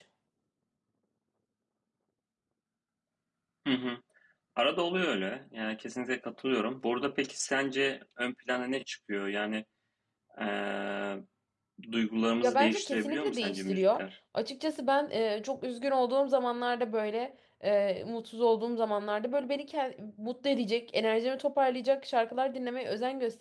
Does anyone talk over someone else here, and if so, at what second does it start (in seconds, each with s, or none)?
12.4 s